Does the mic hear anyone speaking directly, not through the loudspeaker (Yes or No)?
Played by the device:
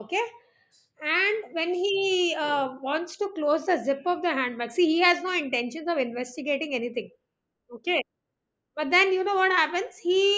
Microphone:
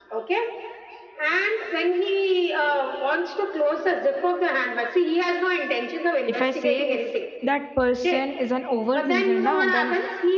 Yes